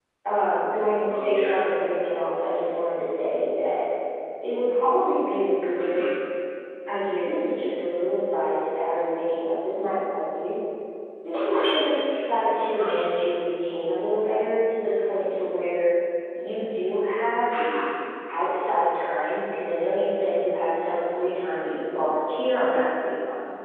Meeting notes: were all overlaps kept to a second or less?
Yes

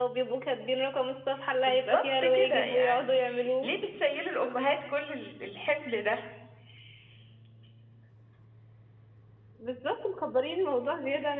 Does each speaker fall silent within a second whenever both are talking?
No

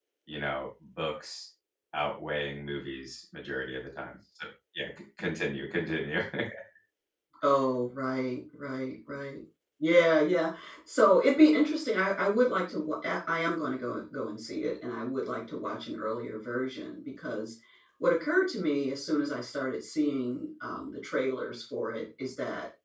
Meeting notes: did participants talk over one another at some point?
No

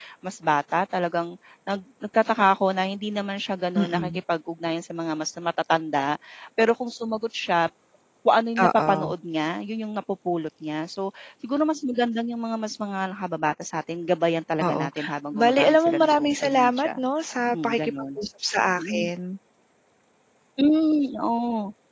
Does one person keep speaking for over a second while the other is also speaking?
Yes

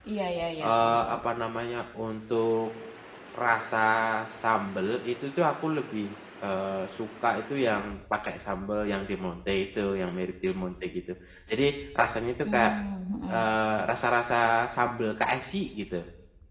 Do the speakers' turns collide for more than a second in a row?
No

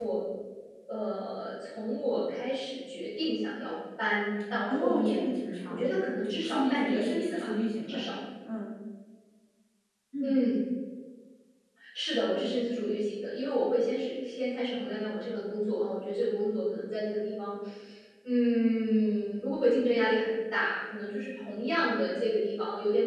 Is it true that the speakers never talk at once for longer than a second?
No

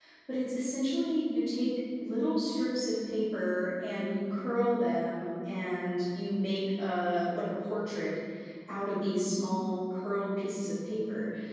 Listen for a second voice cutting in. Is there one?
No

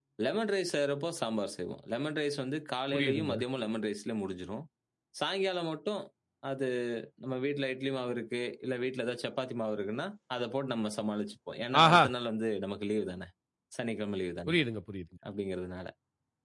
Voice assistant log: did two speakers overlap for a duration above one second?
No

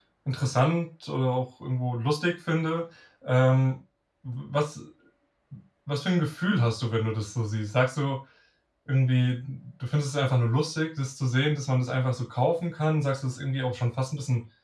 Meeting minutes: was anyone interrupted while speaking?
No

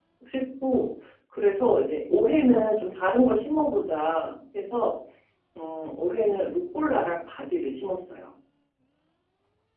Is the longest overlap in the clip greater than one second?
No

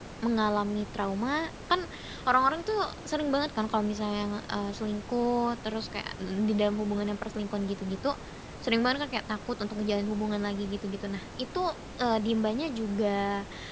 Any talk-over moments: No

